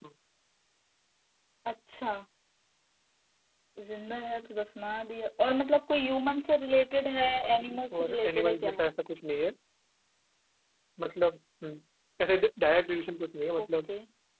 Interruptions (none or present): present